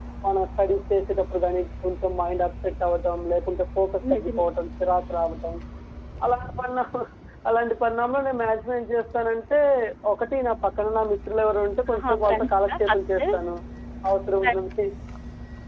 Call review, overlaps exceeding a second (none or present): present